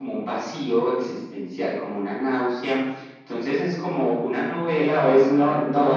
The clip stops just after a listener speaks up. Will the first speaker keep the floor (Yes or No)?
No